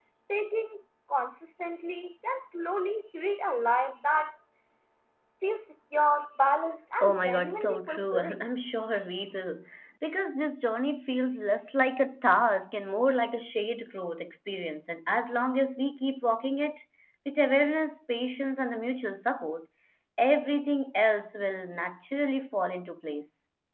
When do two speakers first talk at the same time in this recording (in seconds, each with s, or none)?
7.0 s